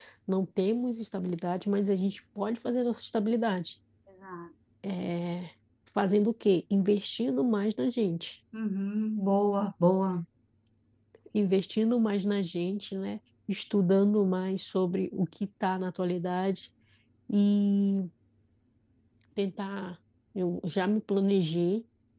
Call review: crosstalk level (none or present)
none